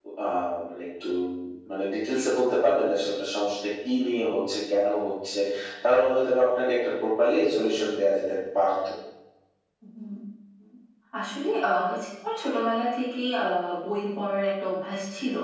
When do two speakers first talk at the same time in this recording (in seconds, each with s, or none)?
none